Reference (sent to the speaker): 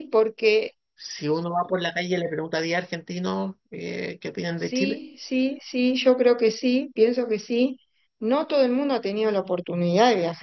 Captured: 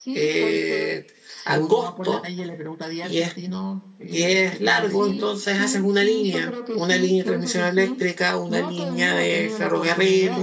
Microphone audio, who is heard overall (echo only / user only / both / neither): both